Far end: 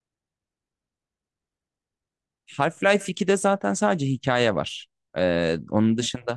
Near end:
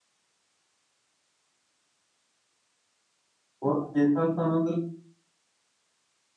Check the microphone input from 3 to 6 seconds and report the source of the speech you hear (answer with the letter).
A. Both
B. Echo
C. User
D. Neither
C